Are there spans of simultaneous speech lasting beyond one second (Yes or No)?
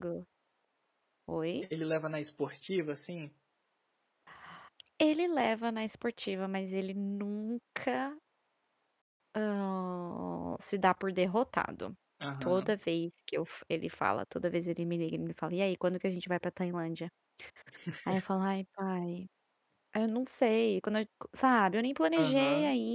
No